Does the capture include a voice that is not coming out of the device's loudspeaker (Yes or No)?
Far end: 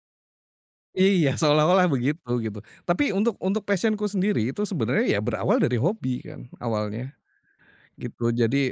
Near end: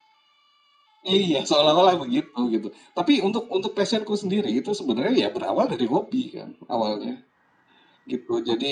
No